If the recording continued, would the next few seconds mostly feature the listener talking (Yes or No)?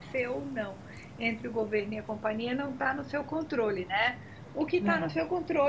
No